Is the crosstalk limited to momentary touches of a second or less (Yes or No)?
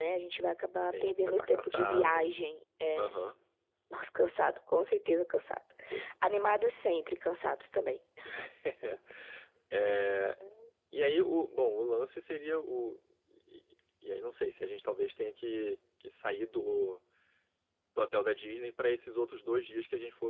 No